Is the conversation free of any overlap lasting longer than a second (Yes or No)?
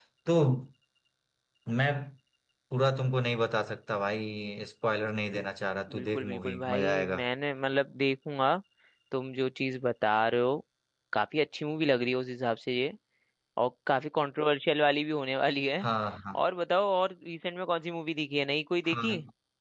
No